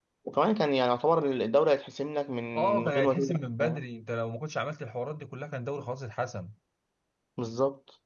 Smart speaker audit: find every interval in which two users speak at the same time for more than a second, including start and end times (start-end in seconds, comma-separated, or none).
2.6-3.8